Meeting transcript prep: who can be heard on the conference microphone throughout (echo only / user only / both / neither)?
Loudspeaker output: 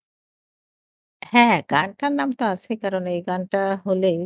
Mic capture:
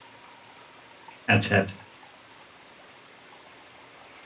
user only